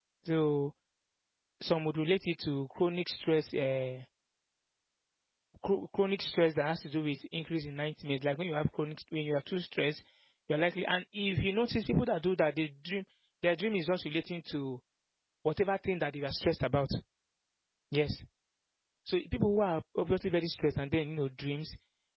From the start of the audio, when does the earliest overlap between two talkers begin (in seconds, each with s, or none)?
none